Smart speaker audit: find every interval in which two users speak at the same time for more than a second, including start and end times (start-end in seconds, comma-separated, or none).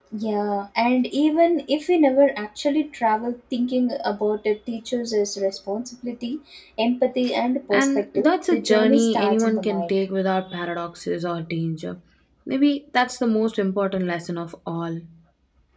7.7-9.9